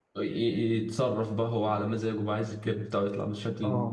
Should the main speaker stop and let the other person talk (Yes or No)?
Yes